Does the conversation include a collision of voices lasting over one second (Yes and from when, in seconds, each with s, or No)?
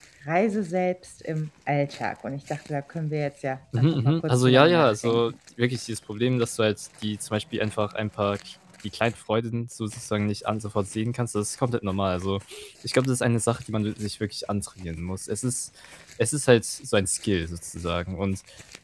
Yes, from 3.7 s